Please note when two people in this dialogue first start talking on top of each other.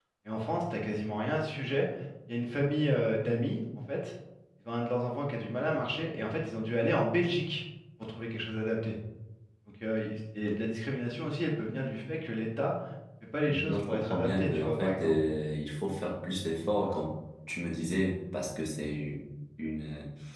13 s

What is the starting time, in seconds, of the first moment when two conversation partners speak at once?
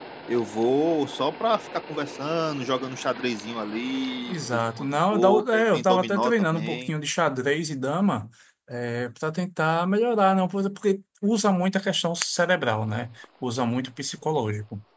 4 s

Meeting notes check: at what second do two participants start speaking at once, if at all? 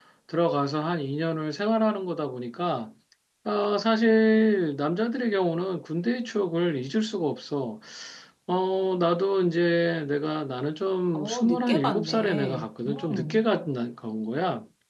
11 s

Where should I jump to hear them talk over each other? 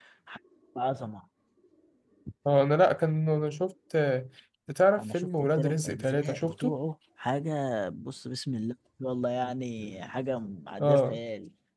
5 s

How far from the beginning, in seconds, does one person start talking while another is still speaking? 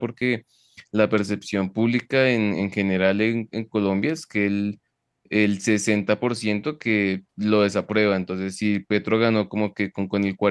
none

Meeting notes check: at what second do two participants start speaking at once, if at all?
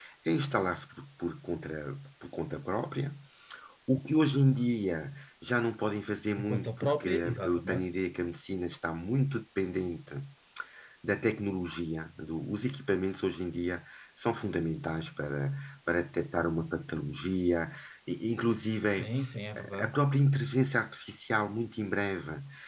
6 s

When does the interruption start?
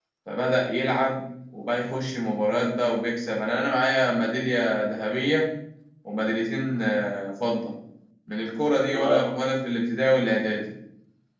none

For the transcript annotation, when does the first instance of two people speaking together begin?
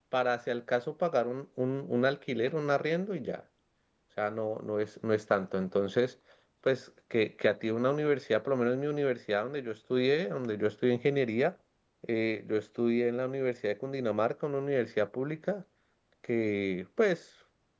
none

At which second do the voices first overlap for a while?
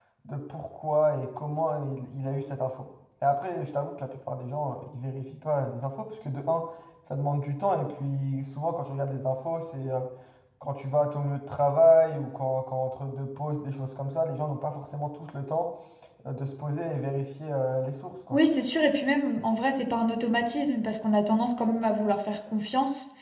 none

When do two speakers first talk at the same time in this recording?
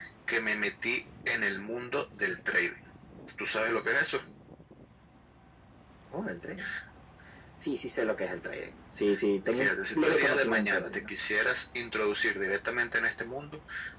9 s

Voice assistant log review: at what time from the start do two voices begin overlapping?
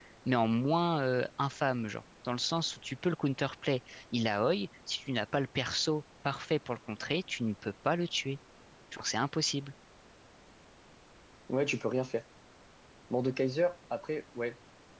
none

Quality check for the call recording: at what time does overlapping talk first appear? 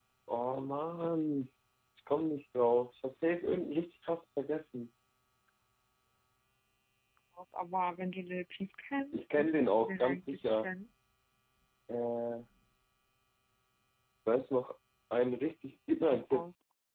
9 s

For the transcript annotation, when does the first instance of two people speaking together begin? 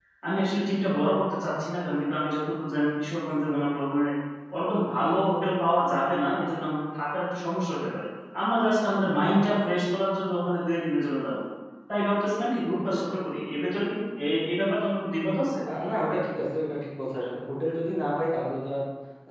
none

